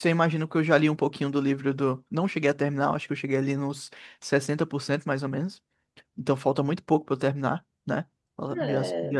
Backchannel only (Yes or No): No